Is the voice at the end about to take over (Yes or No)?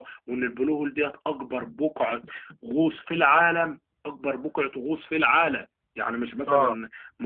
No